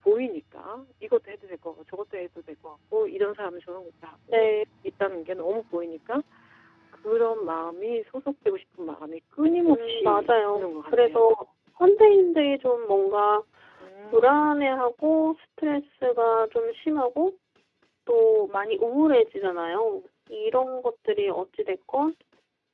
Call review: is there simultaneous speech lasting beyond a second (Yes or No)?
Yes